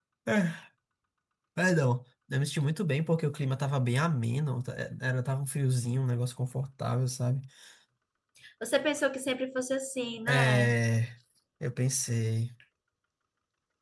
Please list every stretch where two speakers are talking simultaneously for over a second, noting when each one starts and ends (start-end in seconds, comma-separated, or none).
none